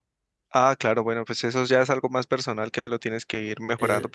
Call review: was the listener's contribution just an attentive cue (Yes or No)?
No